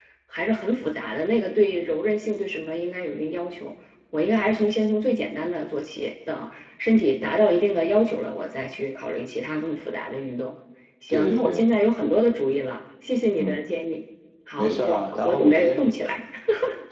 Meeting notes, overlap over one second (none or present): present